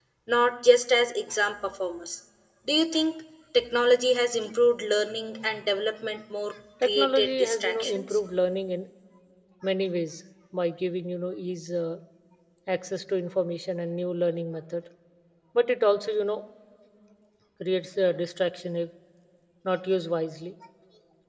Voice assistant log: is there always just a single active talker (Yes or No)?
No